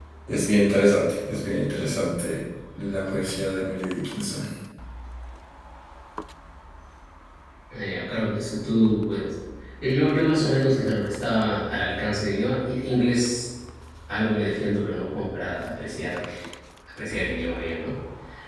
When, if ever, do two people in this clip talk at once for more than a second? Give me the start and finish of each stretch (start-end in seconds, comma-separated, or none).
none